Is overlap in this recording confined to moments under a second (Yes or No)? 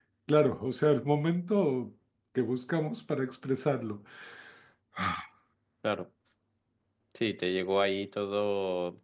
Yes